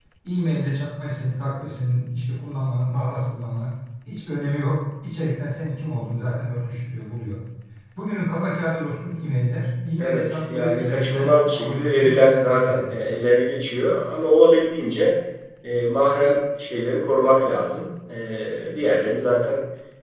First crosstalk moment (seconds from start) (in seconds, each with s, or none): 10.0 s